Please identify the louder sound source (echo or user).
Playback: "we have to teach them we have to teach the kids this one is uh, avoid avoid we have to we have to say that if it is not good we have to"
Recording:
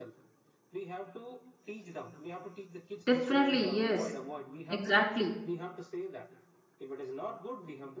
user